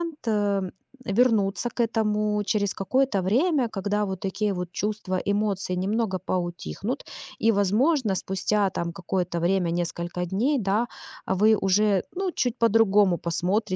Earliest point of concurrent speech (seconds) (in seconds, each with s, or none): none